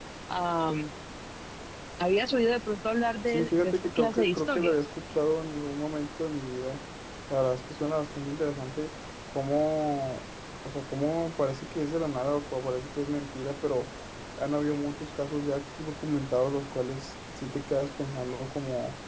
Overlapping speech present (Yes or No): Yes